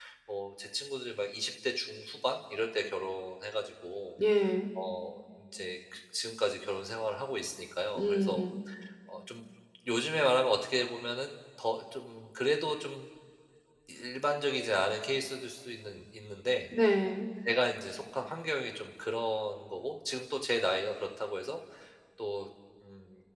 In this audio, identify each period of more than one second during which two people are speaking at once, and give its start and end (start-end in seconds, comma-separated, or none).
none